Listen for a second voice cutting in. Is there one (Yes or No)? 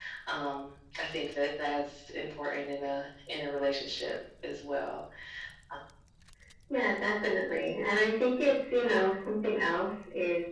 No